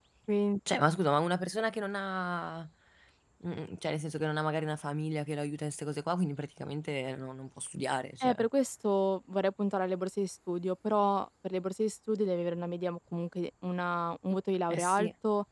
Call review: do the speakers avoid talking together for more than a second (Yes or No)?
Yes